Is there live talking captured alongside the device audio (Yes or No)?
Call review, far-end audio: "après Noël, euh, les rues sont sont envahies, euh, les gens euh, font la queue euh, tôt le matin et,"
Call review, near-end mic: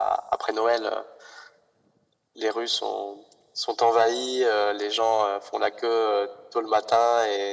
No